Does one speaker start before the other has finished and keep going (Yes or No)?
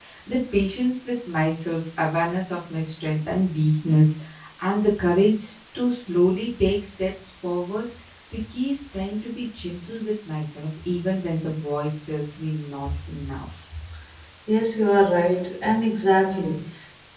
No